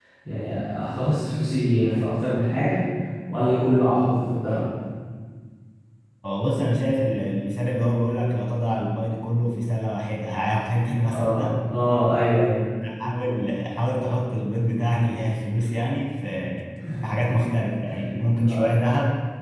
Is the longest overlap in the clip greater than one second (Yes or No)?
No